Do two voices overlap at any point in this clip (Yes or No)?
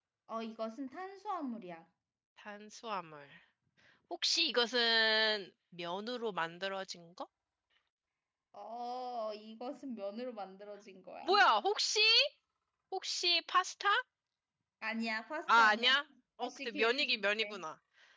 Yes